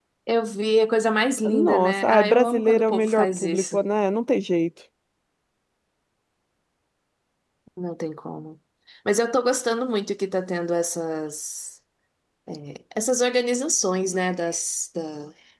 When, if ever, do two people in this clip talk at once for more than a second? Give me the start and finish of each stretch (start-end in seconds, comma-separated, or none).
1.5-3.8